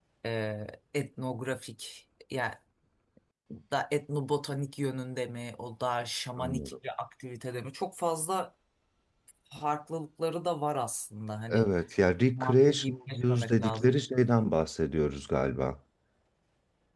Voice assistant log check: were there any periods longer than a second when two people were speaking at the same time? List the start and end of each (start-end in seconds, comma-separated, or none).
12.4-14.0